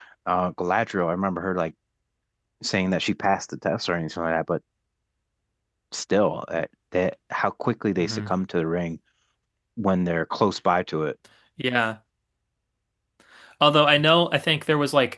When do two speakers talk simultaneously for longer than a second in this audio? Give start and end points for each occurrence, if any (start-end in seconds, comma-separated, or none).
none